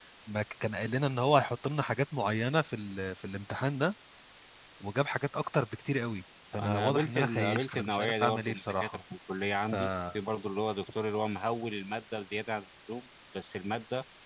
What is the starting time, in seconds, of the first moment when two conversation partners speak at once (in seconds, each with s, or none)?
6.6 s